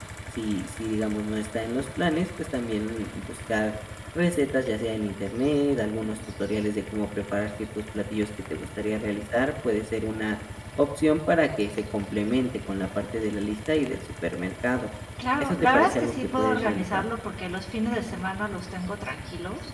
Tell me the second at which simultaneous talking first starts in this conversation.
15 s

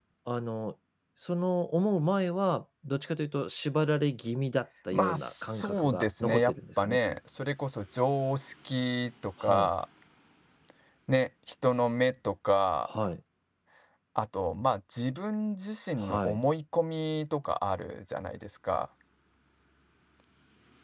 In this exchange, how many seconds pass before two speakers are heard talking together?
5 s

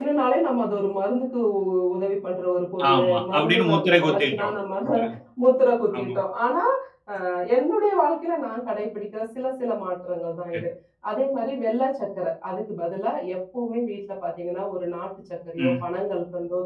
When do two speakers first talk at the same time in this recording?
3 s

